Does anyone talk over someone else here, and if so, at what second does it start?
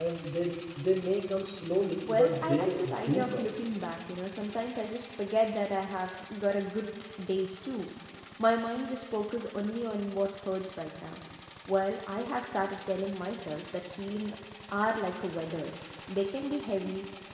2.0 s

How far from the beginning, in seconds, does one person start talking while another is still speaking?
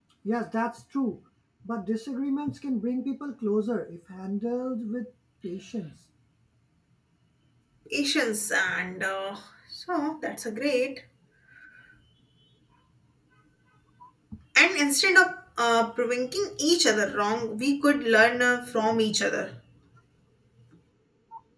none

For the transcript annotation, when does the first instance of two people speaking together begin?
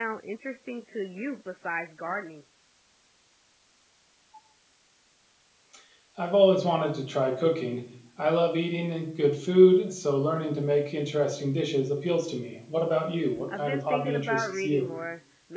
13.5 s

